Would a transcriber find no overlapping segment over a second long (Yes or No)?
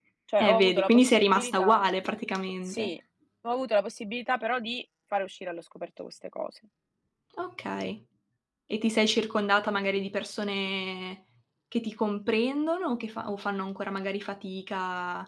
No